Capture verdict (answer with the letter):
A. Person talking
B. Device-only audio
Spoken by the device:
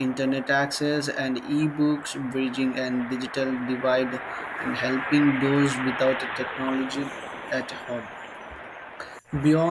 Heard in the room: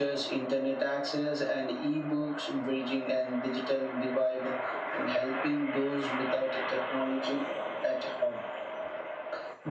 B